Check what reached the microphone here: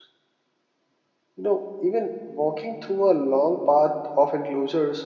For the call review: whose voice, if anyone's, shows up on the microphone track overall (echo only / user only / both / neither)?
user only